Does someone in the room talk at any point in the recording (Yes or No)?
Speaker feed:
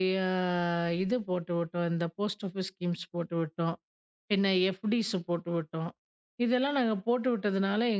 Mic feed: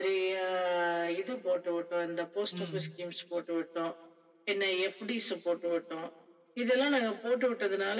Yes